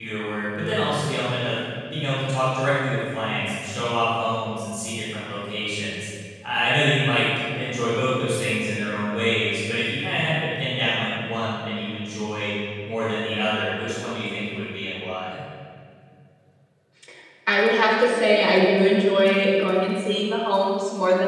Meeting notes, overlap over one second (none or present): none